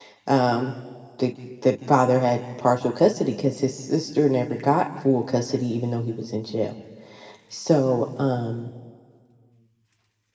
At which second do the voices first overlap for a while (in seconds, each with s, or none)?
none